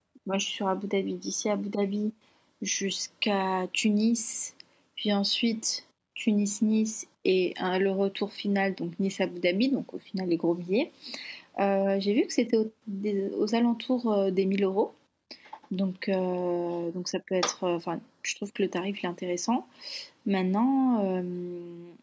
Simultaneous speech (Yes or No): No